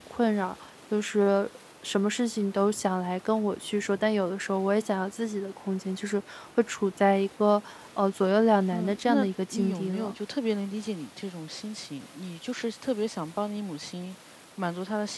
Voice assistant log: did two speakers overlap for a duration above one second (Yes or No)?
Yes